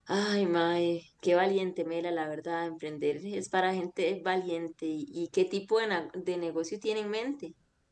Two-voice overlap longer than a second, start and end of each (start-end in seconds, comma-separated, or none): none